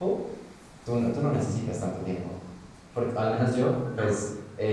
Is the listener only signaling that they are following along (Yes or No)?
Yes